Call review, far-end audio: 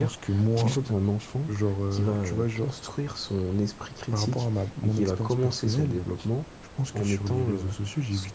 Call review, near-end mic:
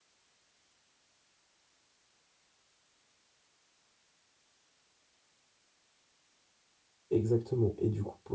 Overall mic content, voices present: user only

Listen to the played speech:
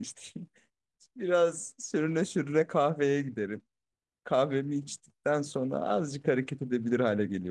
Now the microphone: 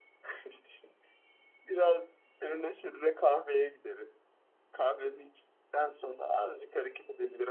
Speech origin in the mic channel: echo only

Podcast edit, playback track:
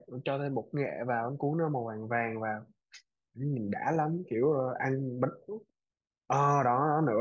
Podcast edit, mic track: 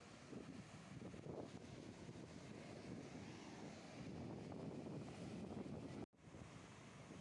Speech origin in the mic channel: neither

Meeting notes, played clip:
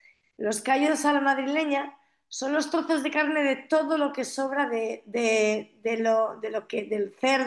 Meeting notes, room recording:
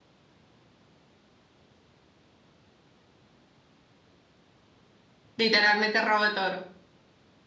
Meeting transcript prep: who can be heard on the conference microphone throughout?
user only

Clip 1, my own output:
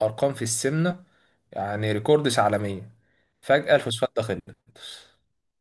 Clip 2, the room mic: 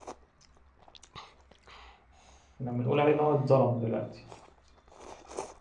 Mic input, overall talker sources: user only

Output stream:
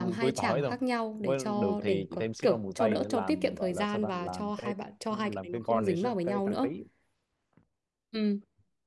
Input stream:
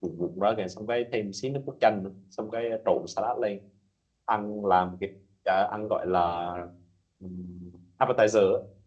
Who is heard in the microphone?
user only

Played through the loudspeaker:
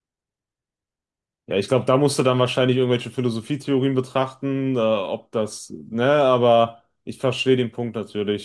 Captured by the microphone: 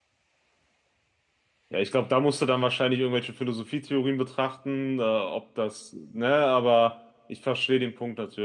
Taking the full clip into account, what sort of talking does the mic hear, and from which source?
echo only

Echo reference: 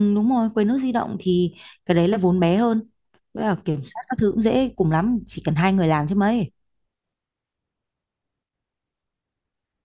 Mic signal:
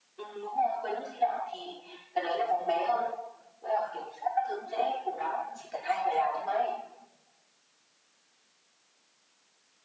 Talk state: echo only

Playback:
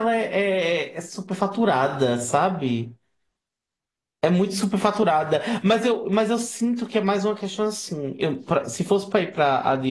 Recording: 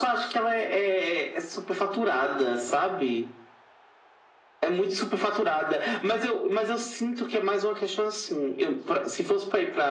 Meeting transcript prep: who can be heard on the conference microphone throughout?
echo only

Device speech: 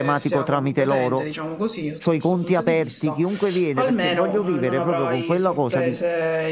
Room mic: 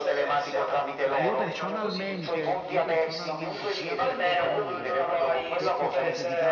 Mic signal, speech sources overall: both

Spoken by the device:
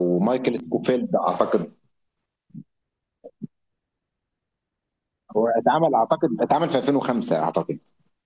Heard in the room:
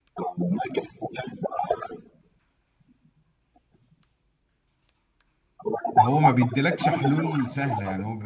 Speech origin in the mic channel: both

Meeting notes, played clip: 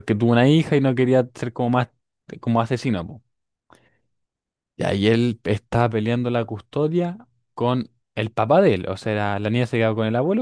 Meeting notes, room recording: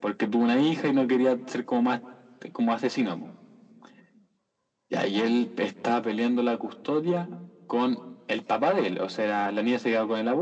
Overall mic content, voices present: echo only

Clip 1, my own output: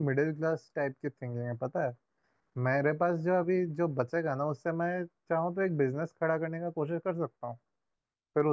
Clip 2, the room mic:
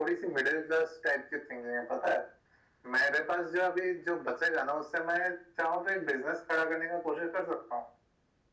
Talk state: echo only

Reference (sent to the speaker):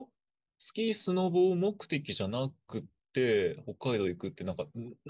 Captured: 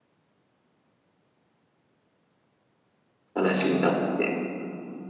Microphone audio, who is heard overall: user only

